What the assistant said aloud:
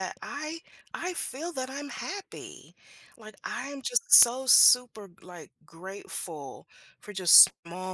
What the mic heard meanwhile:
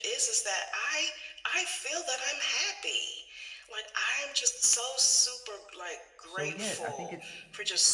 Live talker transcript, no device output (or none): So, yeah, I think it's